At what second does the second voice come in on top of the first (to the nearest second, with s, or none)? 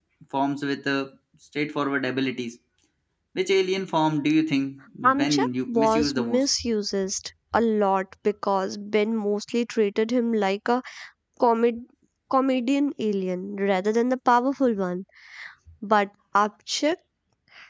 5 s